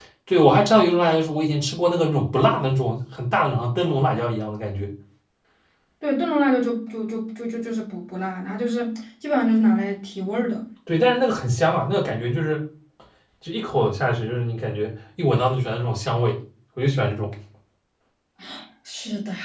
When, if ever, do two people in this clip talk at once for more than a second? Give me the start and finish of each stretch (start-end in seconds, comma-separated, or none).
none